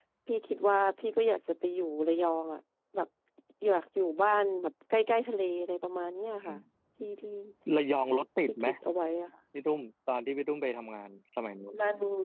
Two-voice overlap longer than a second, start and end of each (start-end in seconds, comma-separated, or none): none